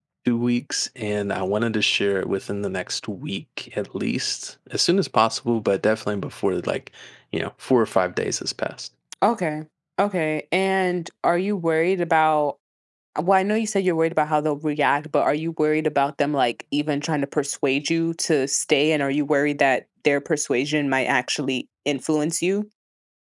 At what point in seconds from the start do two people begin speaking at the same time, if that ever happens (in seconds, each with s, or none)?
none